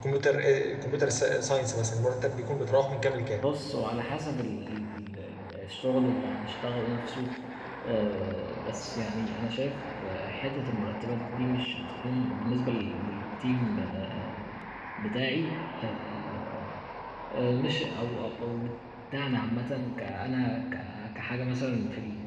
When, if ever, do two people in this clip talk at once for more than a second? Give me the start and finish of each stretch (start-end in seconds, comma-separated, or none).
none